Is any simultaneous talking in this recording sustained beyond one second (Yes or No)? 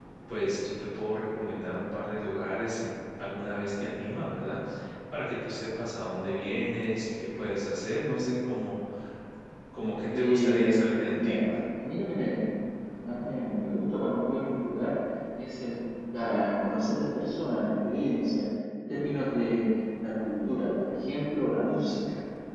Yes